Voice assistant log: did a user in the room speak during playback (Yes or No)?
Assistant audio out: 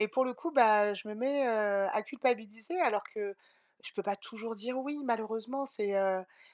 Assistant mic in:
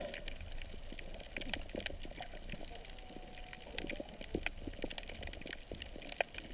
No